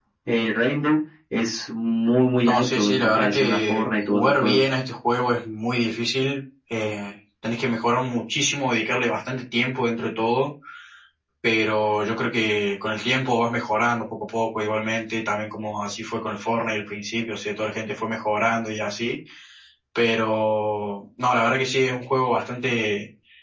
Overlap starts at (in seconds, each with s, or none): 2.4 s